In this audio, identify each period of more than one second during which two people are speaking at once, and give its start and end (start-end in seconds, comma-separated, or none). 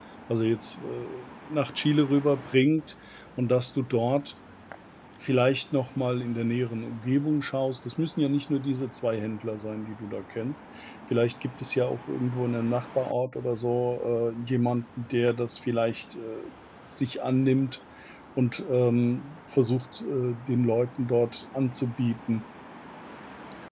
none